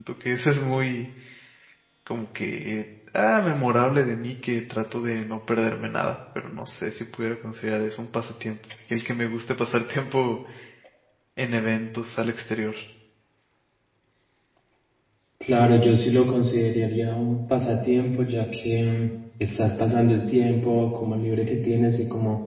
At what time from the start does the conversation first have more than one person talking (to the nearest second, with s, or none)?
none